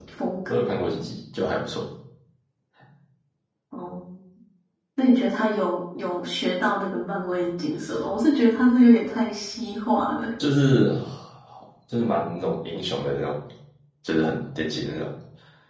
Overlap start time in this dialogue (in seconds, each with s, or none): none